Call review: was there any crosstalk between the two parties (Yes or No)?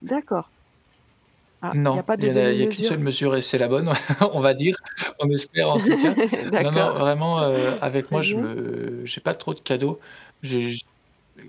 Yes